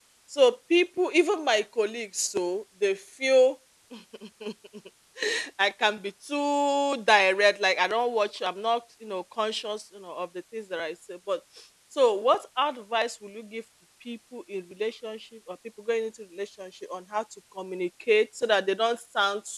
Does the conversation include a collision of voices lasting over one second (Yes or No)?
No